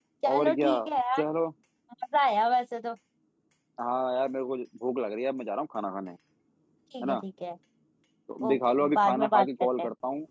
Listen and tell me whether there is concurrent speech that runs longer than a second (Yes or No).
Yes